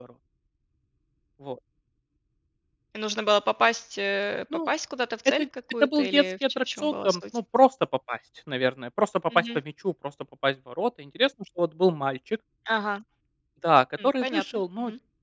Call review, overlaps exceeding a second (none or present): present